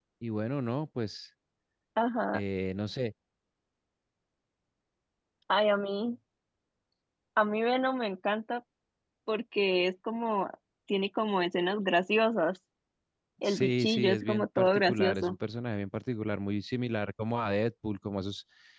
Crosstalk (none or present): present